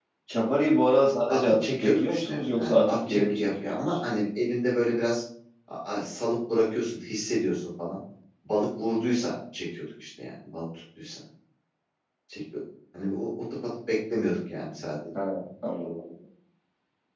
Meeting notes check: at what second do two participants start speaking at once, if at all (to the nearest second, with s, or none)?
1 s